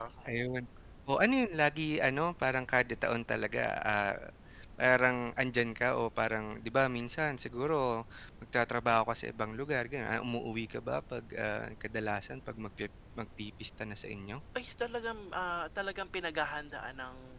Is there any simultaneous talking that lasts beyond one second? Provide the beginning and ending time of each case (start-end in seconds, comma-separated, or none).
none